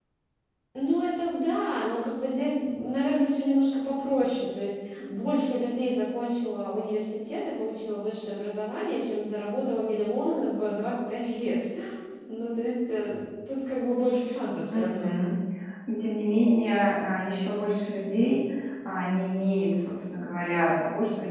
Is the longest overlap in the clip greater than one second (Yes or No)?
No